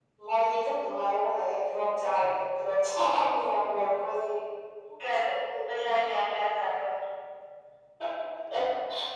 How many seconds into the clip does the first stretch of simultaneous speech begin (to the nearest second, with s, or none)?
none